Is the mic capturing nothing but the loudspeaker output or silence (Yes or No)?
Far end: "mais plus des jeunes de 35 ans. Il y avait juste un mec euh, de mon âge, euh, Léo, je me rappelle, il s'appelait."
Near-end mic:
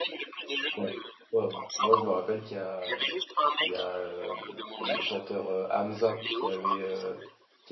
No